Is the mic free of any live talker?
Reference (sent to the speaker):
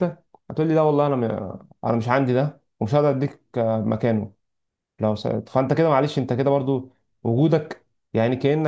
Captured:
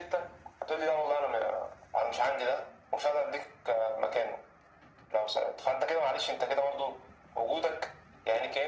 Yes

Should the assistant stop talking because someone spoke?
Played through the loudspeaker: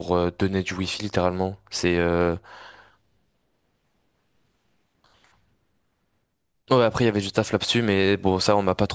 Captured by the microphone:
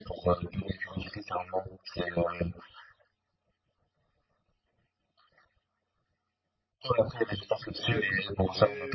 Yes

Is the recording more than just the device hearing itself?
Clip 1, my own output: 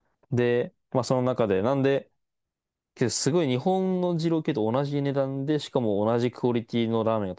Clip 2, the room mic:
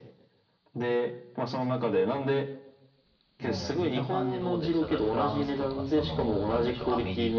Yes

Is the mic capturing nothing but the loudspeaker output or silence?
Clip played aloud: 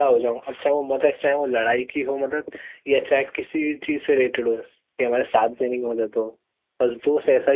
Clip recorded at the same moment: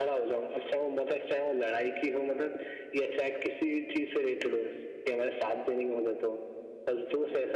Yes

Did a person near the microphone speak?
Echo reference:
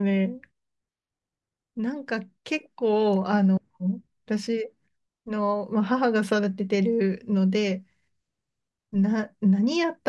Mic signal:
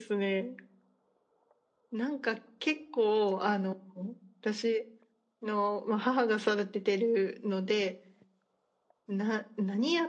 No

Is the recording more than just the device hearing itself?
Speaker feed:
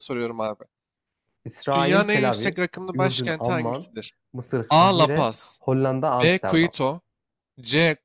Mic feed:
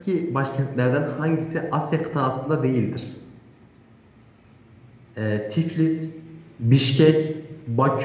Yes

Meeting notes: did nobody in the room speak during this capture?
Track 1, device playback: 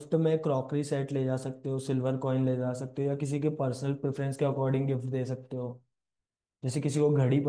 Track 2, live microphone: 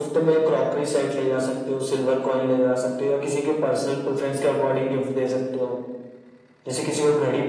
Yes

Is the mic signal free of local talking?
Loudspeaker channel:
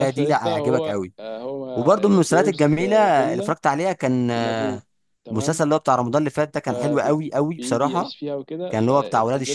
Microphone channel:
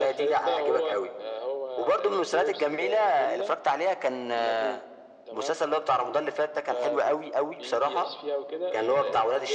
Yes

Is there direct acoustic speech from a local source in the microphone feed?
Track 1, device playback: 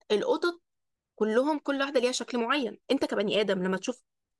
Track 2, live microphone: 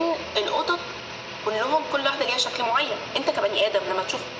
No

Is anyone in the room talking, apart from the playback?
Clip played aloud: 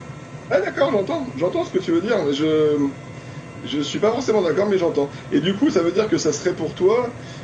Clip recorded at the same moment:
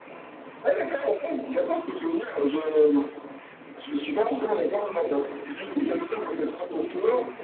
No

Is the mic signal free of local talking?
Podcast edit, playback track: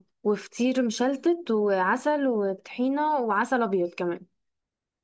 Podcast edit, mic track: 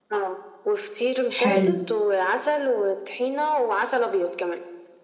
No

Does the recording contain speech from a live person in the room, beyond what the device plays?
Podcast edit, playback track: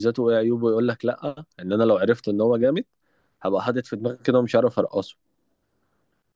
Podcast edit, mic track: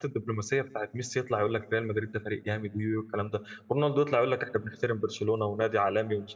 Yes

